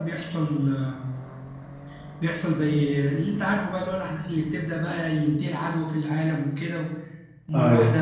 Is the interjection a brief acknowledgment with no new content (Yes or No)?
Yes